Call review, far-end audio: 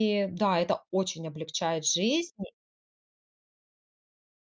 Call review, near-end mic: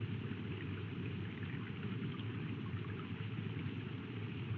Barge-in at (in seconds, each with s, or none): none